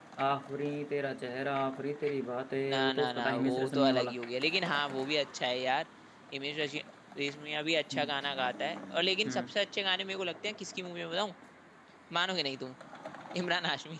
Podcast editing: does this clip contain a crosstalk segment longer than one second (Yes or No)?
Yes